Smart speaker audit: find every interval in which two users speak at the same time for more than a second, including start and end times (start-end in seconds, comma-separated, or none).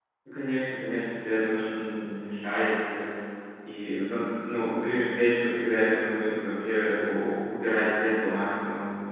none